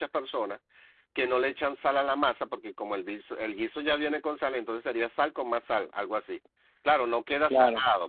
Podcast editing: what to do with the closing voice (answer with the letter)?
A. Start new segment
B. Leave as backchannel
B